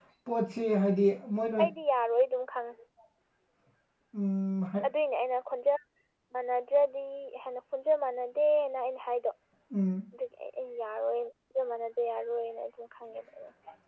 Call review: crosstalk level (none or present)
none